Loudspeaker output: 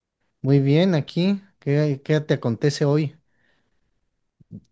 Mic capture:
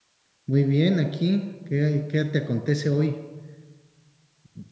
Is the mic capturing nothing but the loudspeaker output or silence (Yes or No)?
Yes